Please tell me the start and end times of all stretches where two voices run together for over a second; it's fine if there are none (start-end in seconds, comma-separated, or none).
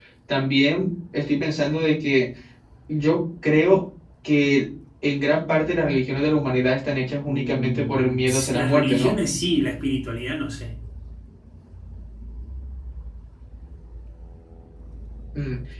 7.3-9.2